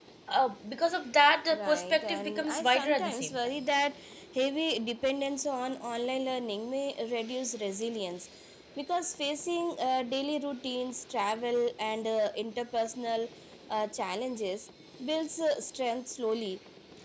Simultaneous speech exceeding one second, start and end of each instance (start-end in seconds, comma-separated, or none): 1.5-3.4